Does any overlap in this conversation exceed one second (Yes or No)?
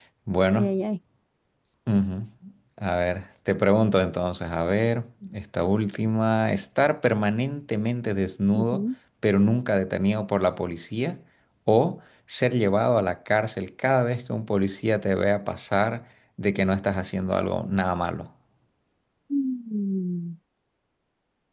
No